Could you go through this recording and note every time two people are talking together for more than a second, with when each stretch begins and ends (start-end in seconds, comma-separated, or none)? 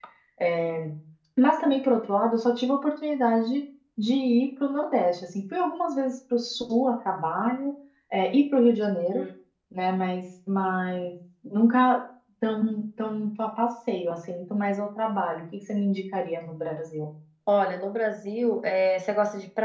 none